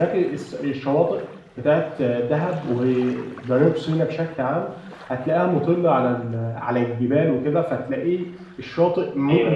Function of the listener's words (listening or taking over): taking over